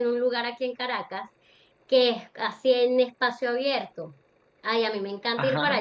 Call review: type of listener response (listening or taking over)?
listening